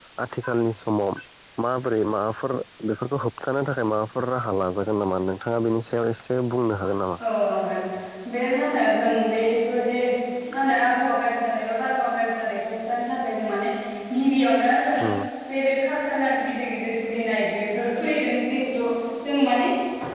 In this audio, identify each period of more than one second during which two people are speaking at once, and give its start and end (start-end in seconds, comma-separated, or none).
none